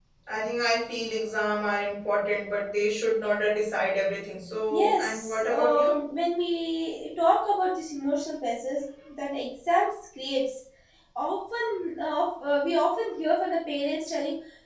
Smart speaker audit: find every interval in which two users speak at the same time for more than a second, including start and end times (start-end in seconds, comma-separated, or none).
4.7-5.9